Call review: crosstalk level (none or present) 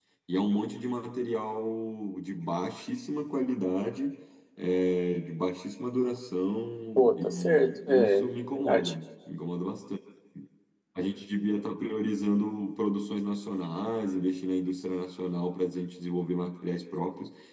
present